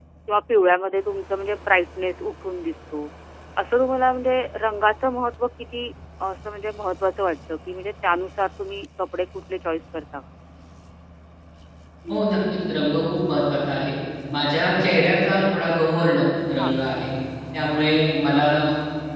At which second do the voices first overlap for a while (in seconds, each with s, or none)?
none